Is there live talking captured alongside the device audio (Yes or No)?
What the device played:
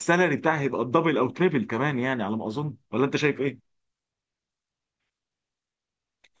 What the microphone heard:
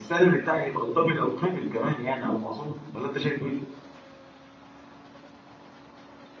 No